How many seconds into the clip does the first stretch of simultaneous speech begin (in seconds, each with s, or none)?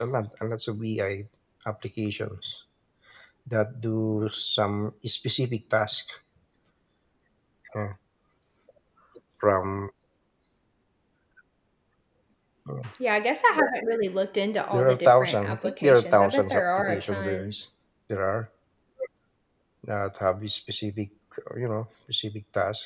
14.7 s